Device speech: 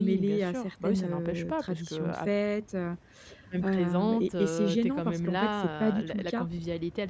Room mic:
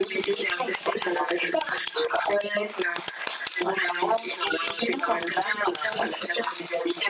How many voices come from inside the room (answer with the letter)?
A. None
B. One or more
A